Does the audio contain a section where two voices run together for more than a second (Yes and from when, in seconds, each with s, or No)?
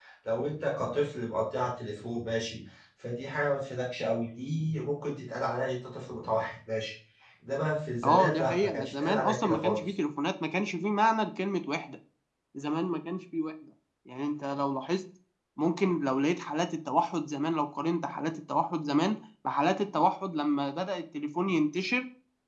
Yes, from 8.0 s